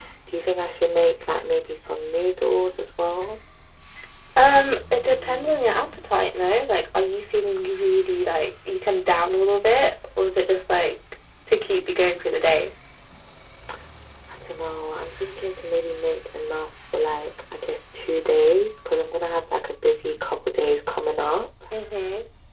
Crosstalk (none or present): none